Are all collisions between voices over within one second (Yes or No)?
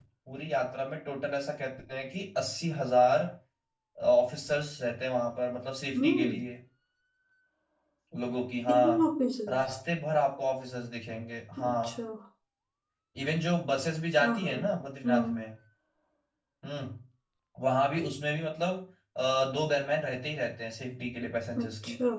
Yes